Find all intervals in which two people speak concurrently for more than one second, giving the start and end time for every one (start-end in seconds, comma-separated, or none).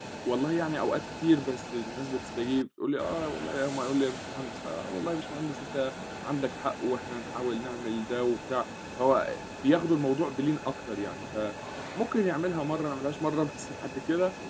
none